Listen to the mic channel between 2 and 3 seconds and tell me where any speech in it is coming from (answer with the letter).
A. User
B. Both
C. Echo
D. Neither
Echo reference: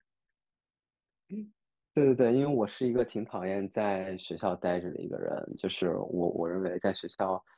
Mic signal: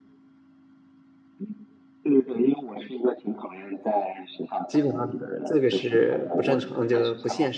C